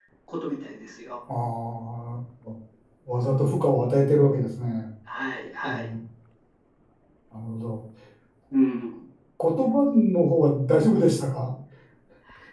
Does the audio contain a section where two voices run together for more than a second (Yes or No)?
No